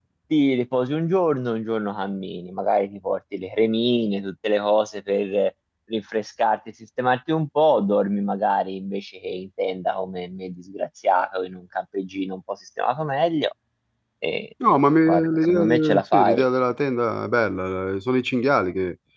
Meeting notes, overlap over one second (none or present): present